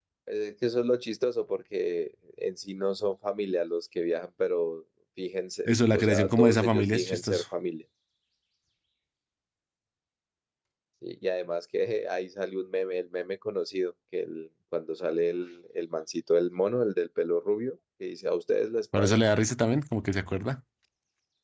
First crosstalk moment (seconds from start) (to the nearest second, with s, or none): 6 s